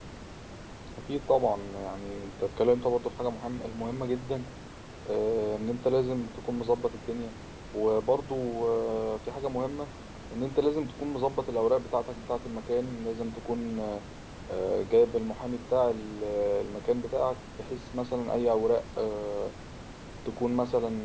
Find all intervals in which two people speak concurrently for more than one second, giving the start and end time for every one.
none

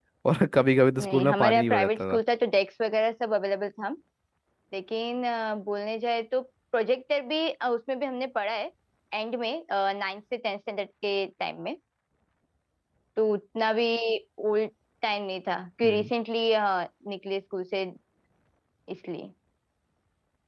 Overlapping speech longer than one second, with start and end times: 1.0-2.2

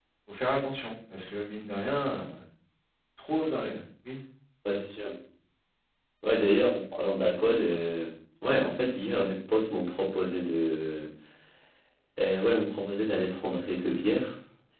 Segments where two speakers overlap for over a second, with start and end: none

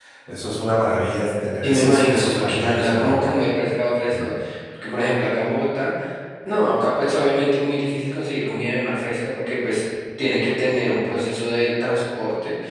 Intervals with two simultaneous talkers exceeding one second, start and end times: 1.6-3.3

